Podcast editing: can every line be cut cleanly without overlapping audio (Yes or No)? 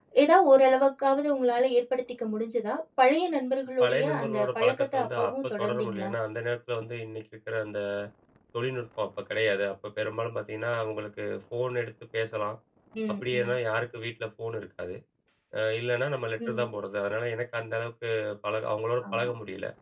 No